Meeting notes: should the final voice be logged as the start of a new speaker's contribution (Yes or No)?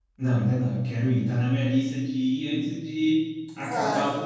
No